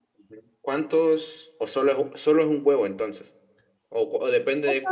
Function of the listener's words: taking over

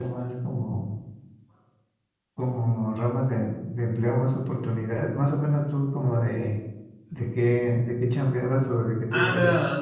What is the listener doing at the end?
taking over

